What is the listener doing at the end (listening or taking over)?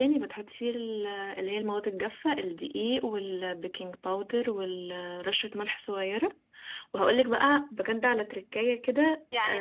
taking over